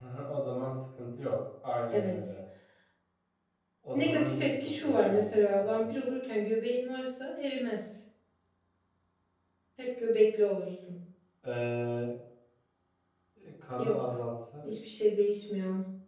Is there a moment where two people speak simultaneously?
Yes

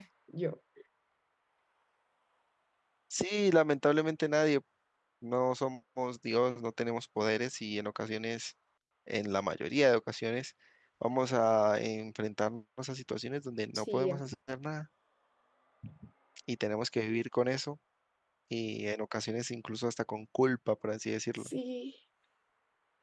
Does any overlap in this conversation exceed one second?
No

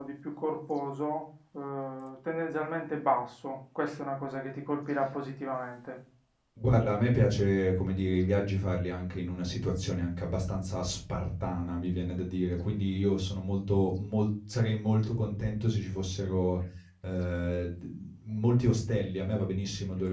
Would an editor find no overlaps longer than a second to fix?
Yes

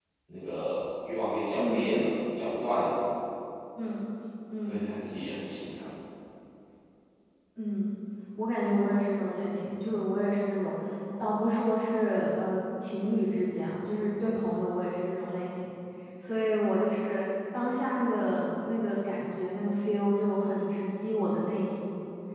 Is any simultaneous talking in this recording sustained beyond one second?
No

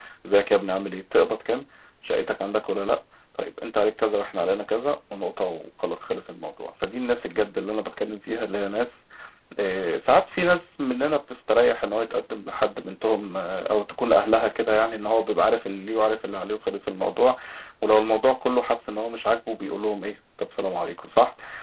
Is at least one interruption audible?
No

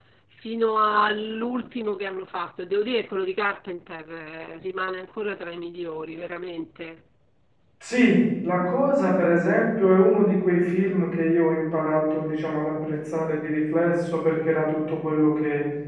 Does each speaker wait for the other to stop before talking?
Yes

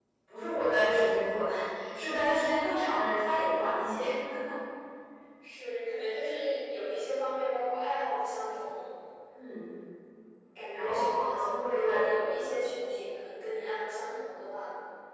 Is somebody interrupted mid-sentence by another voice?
Yes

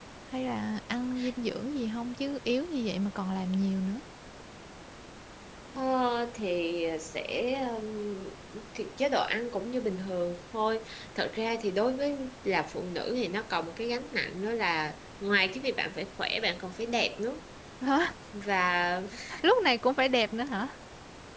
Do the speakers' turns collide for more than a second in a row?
No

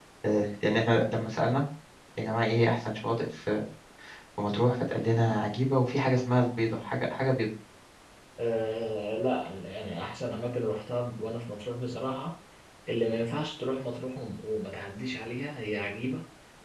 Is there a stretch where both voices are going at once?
No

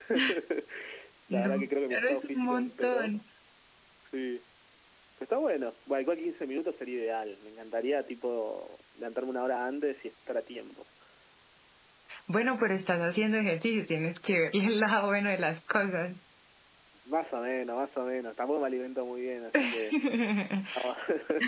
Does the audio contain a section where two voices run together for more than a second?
Yes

